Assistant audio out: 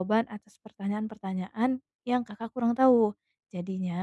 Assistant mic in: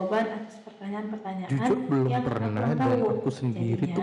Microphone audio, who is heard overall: both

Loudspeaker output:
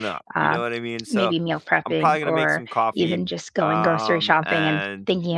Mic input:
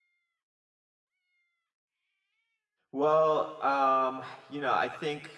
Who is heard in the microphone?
user only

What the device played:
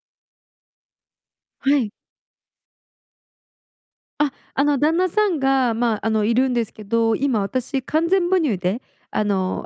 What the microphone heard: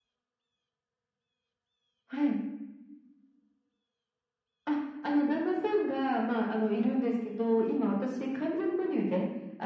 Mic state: echo only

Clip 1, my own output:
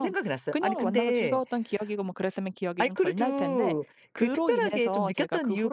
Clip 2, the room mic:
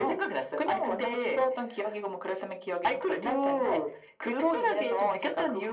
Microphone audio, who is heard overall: echo only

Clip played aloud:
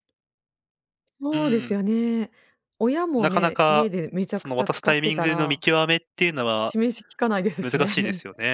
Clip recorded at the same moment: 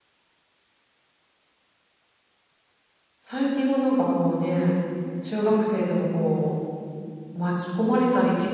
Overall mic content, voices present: user only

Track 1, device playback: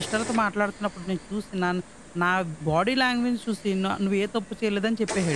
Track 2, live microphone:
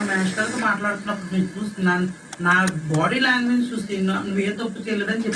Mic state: echo only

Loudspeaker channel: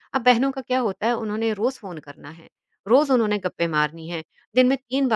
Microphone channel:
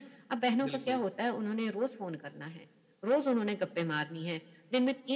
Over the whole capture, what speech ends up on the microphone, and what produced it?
both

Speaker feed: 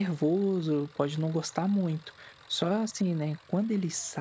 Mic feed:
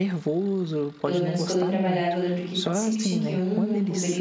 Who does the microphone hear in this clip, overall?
both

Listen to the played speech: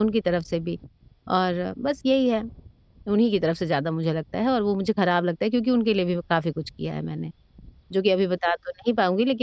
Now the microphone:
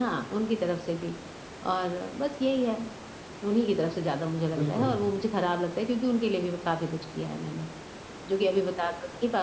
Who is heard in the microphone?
both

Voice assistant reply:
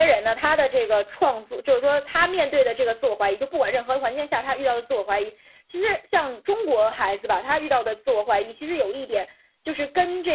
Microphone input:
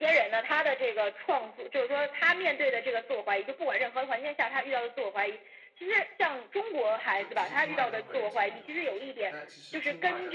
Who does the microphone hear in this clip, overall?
both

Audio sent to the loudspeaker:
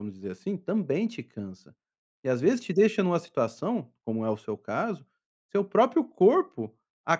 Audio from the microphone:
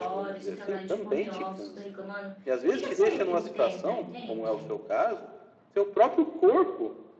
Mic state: both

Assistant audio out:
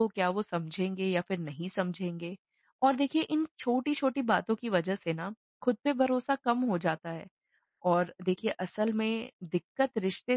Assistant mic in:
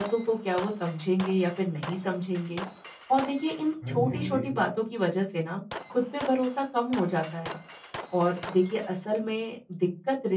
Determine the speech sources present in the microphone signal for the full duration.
both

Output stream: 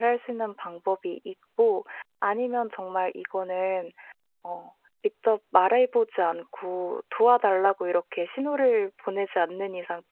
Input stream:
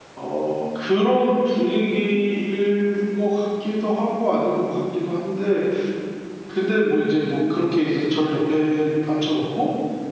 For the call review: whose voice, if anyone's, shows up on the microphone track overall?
user only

